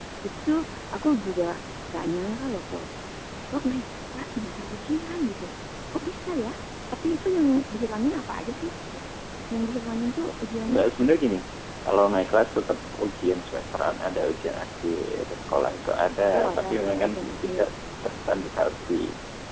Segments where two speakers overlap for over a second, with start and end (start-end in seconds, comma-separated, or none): 16.4-17.6